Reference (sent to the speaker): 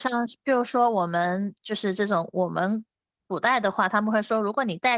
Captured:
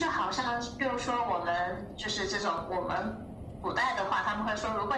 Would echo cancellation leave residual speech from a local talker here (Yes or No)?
No